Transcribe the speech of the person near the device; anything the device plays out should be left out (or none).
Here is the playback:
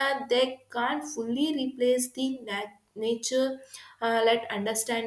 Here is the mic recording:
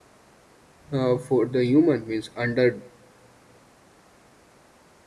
uh, for the human means under